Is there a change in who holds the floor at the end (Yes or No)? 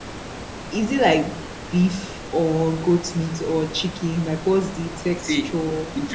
Yes